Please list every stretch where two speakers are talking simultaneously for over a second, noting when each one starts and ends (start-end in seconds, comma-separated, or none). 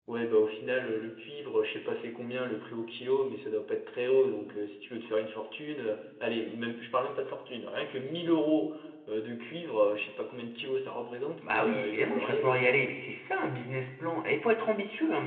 11.4-12.9